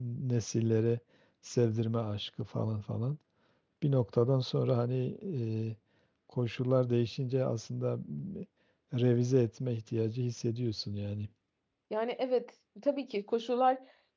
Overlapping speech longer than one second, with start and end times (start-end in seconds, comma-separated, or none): none